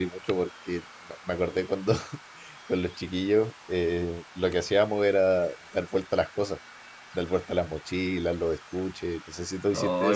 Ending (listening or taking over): taking over